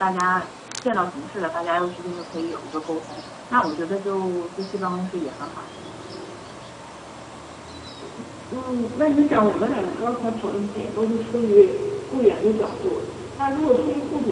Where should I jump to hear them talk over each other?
none

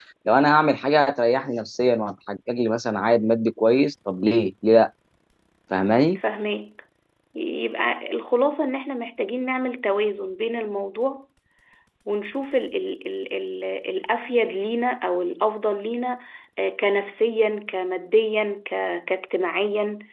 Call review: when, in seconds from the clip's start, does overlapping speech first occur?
none

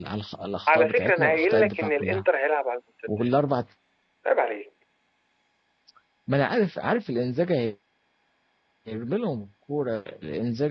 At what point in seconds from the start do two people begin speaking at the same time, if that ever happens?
0.7 s

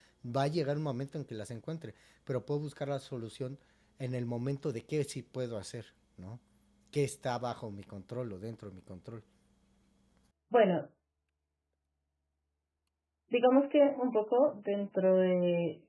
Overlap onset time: none

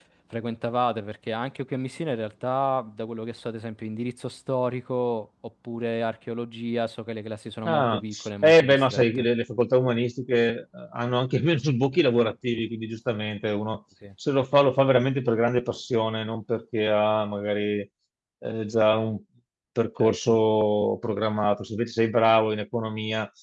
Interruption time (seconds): 7.7 s

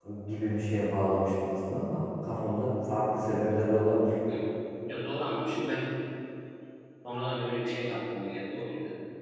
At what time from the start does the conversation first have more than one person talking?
none

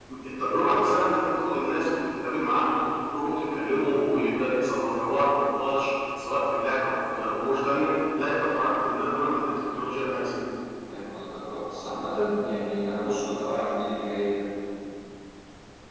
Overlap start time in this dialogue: none

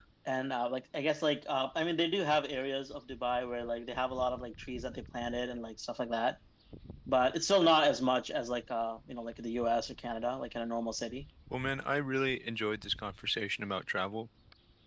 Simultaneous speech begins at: none

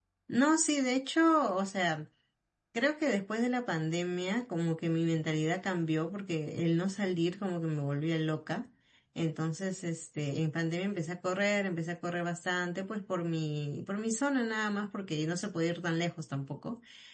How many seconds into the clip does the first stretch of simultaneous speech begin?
none

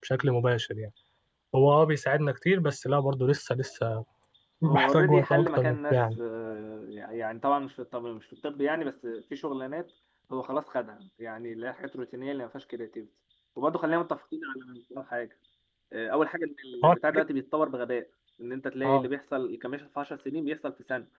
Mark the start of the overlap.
4.6 s

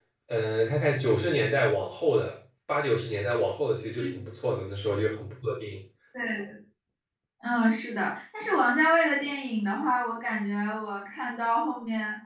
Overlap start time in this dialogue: none

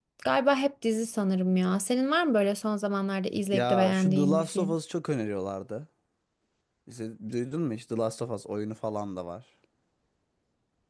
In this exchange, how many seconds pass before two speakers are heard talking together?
3.5 s

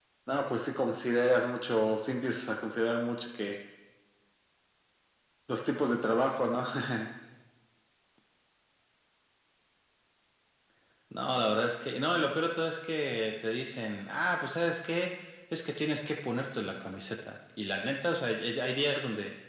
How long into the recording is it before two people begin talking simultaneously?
none

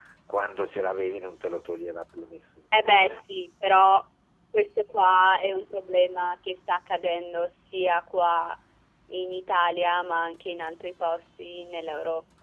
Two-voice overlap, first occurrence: none

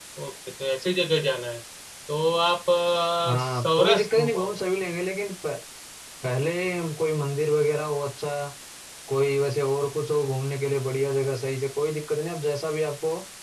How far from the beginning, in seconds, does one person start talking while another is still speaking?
3.3 s

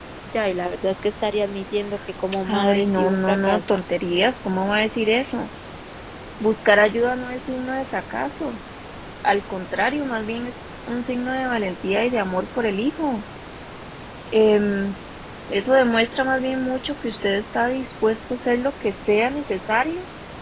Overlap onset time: 2.5 s

